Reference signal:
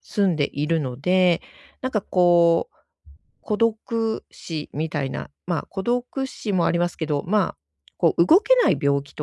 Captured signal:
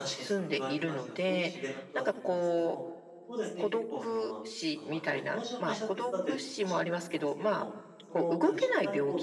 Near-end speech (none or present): present